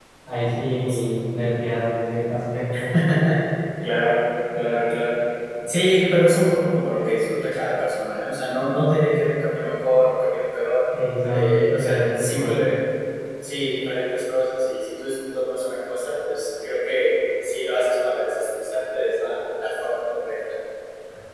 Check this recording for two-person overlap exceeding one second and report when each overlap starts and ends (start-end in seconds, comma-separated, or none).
11.3-12.6